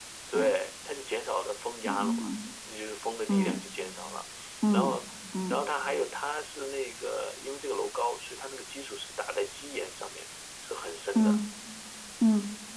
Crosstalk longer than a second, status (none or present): none